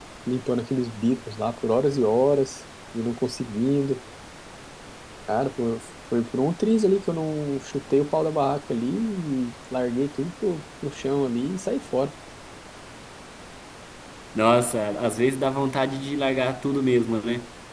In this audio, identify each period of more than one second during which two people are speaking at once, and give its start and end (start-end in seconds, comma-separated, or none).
none